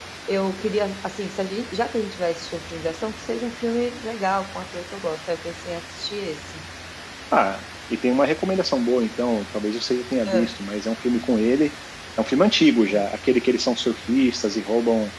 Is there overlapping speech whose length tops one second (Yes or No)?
No